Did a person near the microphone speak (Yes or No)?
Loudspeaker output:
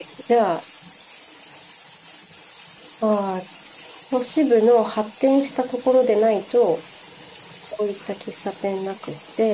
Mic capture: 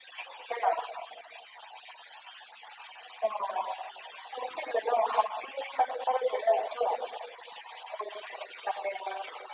No